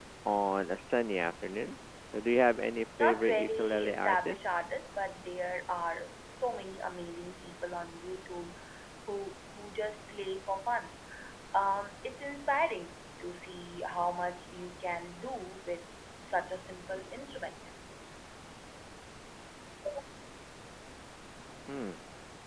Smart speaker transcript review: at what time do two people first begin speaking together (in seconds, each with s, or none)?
3.0 s